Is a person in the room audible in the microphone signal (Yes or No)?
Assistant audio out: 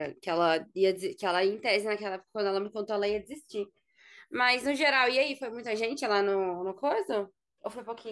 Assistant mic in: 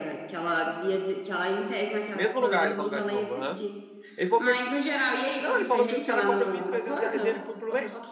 Yes